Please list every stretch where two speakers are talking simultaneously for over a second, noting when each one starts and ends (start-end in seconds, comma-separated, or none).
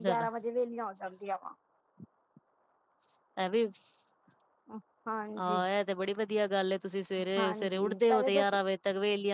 7.4-8.6